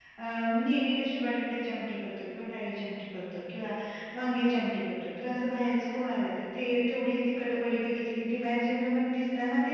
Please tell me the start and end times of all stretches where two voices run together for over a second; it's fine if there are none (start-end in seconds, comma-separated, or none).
none